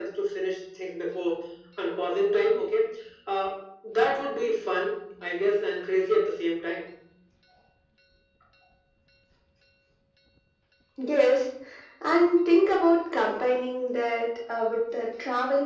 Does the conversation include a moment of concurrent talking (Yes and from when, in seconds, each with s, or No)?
No